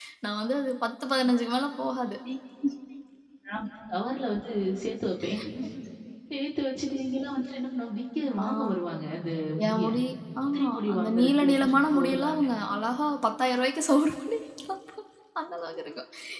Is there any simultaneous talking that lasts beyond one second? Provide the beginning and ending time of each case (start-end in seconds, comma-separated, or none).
10.5-12.3